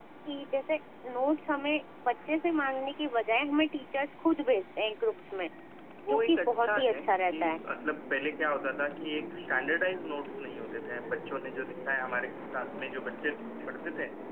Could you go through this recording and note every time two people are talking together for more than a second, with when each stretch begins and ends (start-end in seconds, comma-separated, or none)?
6.1-7.5